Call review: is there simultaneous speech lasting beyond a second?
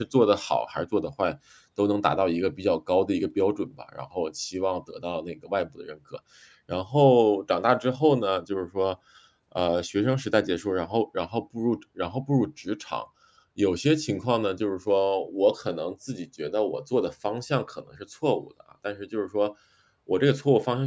No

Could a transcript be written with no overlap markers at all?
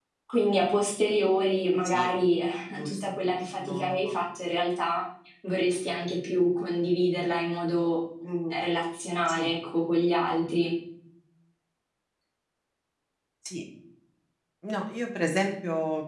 No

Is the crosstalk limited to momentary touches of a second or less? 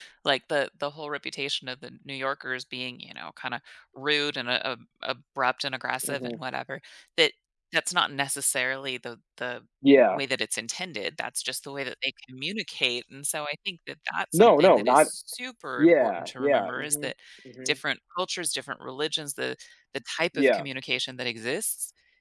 No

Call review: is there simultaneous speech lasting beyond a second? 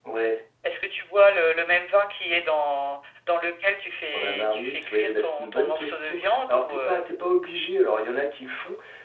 Yes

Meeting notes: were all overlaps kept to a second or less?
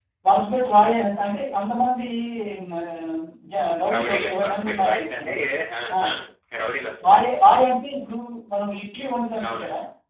No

